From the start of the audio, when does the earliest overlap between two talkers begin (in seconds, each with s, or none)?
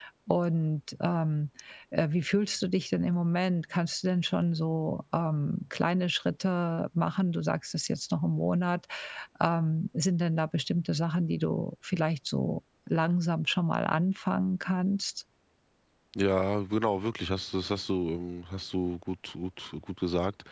none